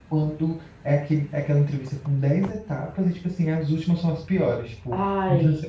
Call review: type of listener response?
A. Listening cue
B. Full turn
A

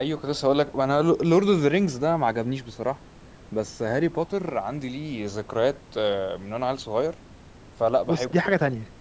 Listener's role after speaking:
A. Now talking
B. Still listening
A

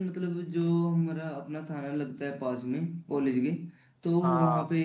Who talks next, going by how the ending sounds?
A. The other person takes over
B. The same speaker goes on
B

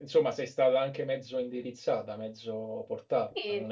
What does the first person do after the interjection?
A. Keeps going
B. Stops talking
B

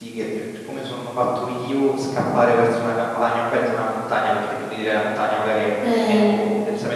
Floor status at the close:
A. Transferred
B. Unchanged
B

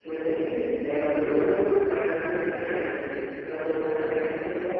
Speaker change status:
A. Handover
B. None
B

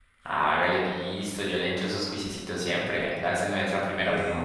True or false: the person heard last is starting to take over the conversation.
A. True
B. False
A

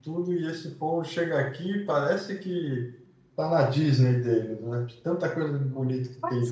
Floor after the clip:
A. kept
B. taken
B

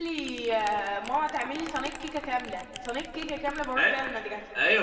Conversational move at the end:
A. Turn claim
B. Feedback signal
A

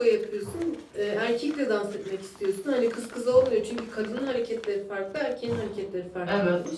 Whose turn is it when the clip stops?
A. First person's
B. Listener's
A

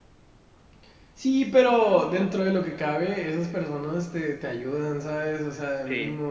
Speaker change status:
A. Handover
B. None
B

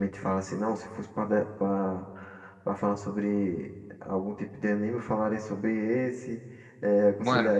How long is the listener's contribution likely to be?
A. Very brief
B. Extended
A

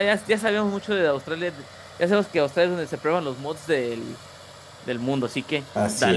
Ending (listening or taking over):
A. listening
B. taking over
B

